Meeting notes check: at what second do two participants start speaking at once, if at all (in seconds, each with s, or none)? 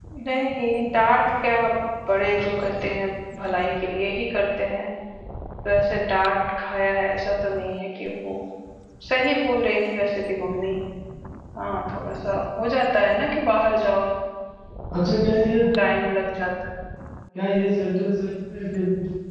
none